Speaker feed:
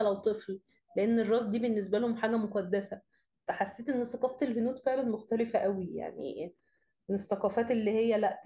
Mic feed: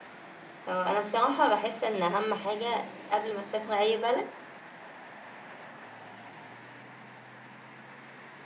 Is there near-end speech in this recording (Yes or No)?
Yes